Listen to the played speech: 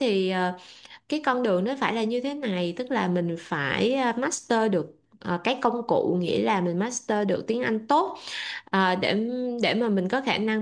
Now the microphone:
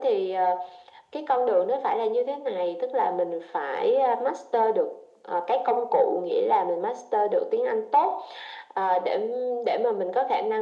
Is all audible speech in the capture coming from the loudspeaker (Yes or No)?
Yes